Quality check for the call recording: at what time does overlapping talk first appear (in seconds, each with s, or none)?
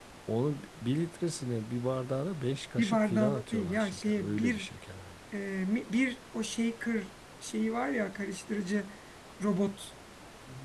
2.8 s